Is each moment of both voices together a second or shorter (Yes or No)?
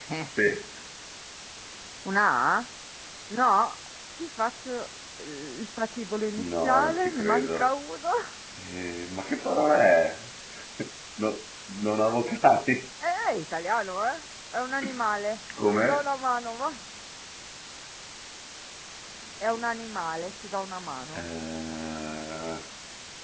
No